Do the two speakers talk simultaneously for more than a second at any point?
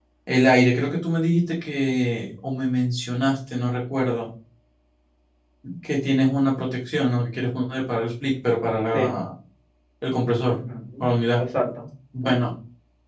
No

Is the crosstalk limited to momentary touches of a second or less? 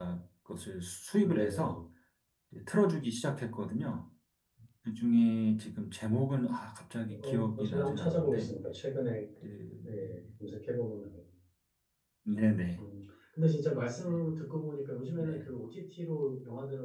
No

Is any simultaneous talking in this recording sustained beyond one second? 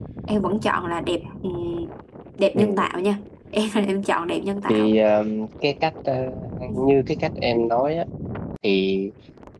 No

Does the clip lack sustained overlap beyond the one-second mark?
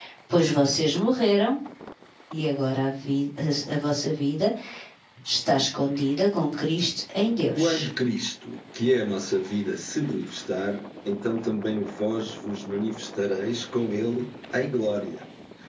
Yes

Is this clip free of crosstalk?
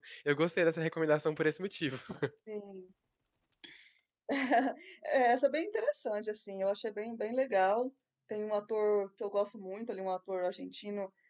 Yes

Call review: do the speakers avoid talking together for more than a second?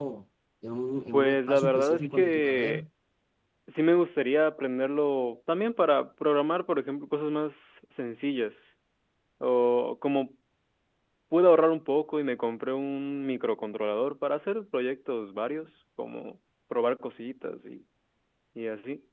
No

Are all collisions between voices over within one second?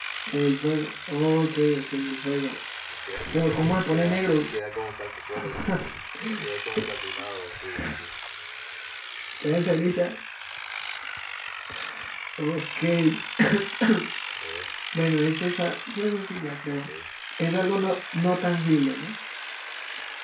No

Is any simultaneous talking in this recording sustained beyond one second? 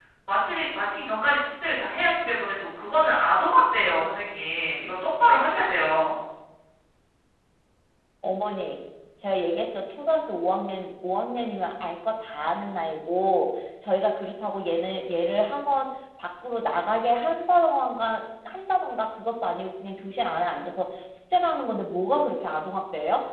No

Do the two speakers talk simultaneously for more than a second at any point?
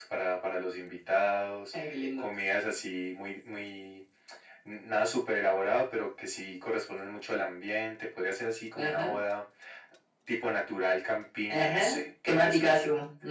Yes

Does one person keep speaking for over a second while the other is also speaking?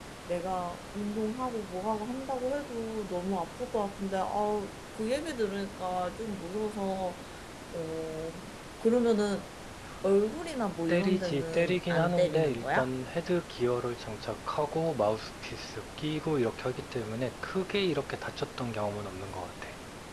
Yes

